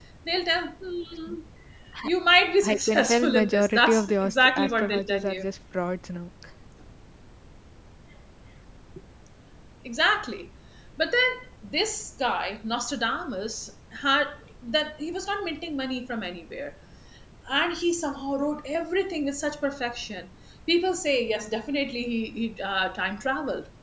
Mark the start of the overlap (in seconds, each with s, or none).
2.6 s